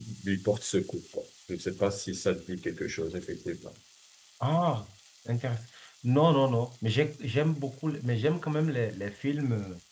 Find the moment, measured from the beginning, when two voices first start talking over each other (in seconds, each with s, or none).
none